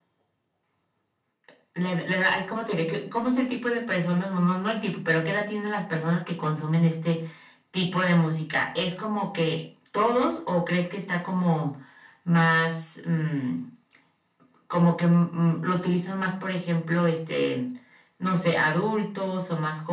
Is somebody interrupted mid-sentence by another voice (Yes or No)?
No